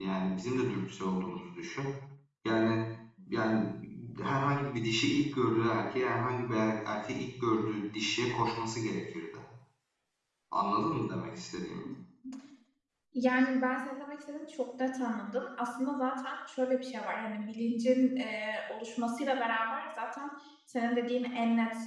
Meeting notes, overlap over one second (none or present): none